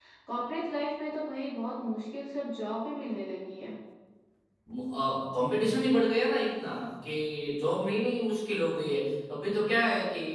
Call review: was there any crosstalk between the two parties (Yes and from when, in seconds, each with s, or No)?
No